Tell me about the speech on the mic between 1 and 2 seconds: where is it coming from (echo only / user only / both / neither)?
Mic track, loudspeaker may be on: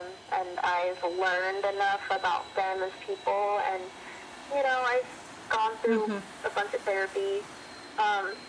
echo only